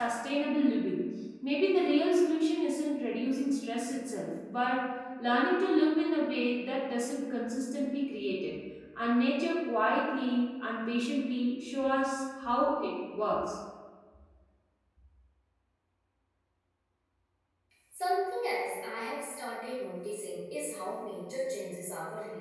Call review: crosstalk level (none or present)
none